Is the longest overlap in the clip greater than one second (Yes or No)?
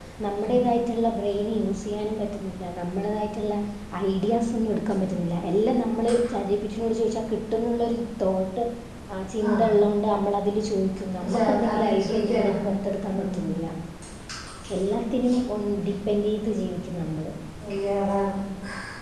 Yes